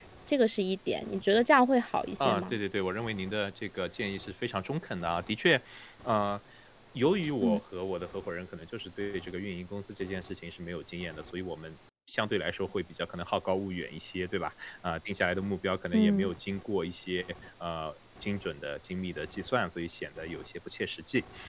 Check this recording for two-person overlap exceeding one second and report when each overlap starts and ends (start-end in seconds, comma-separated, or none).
none